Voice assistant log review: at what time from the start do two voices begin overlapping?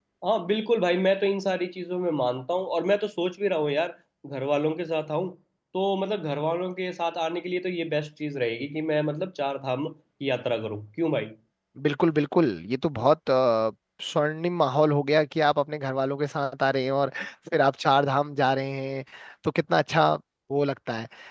none

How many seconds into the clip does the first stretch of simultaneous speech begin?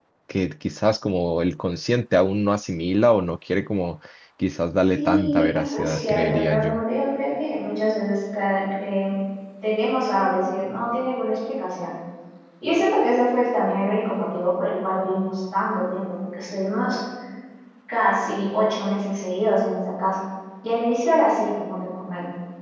5 s

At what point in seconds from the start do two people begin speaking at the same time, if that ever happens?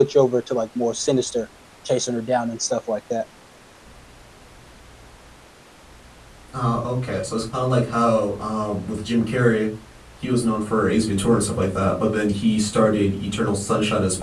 none

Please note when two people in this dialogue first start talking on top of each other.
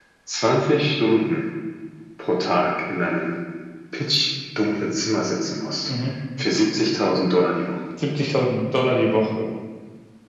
none

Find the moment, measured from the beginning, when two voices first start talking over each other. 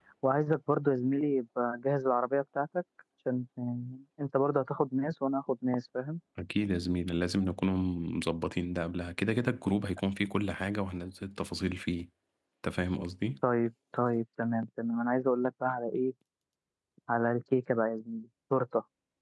none

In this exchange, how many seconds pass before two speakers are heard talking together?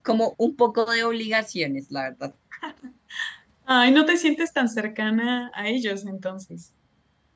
none

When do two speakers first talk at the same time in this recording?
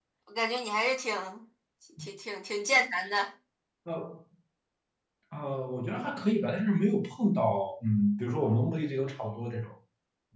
none

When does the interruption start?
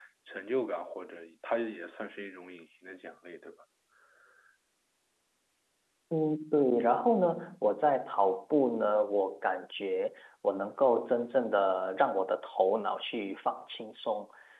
none

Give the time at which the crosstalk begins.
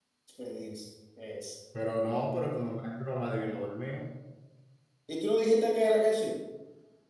none

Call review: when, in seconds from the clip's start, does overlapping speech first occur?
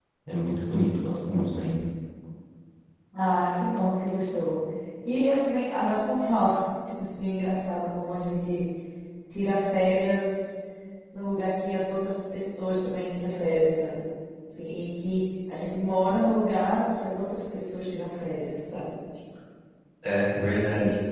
none

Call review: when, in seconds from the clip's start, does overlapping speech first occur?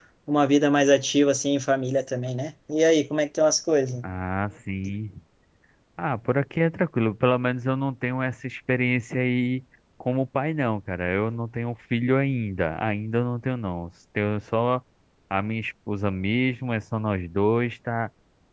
none

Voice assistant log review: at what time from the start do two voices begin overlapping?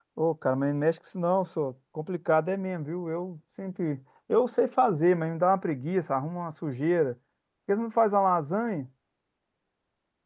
none

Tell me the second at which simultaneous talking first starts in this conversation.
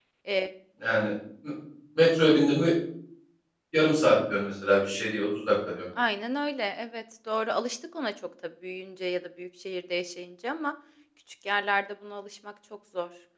none

